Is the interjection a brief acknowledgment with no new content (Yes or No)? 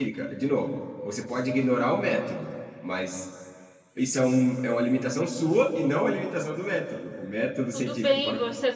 No